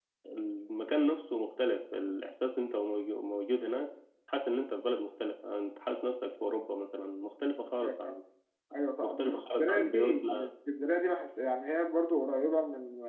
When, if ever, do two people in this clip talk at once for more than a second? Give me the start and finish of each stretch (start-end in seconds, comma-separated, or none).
9.0-10.5